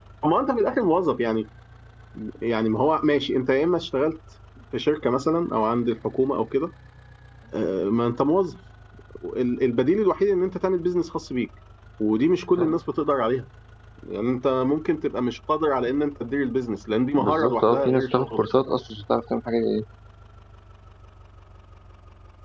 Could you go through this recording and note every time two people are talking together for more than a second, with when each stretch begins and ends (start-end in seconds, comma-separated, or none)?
17.2-18.5